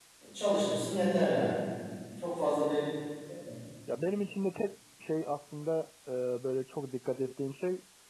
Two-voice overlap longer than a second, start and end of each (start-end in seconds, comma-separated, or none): none